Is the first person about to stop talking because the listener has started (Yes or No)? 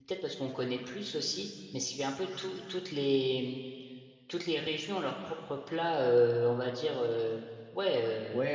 Yes